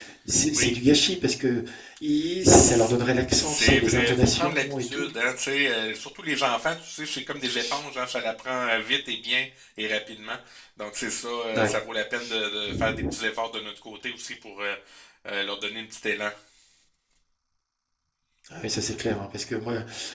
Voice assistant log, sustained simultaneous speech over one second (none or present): present